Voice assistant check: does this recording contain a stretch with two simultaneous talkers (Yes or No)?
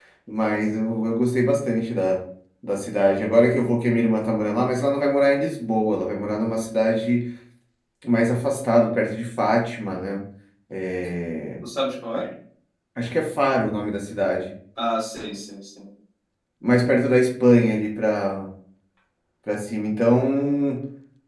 No